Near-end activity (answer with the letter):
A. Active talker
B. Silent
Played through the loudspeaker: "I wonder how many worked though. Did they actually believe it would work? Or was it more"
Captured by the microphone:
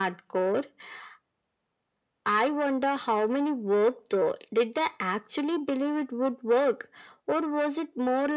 B